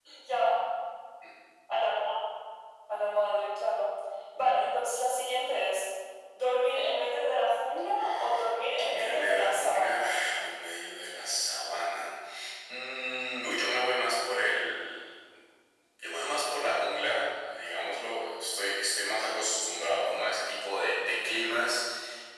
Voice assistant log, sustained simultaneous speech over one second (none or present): present